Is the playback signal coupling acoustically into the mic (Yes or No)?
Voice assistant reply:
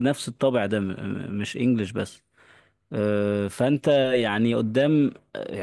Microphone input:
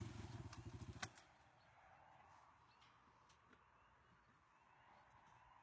No